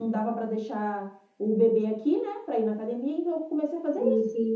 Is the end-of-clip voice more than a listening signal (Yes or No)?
Yes